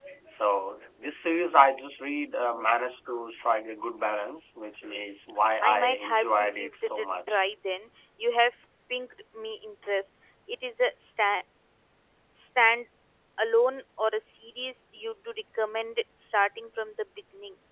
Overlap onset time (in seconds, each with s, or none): 5.6 s